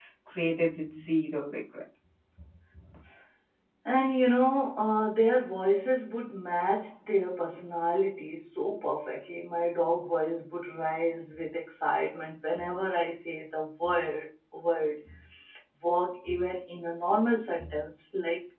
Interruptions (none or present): none